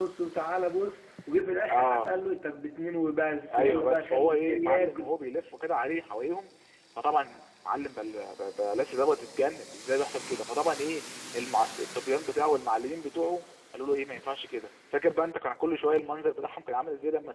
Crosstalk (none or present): present